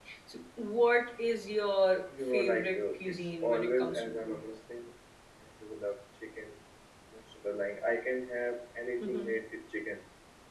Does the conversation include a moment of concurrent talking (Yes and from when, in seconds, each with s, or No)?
Yes, from 2.3 s